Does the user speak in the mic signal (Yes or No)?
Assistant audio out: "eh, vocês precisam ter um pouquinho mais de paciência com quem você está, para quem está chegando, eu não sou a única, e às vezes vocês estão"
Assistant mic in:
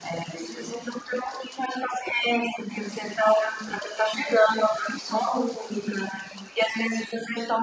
No